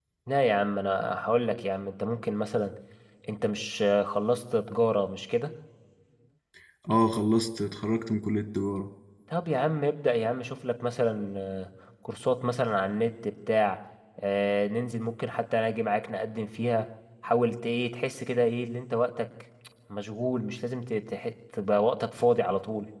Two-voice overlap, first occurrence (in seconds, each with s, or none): none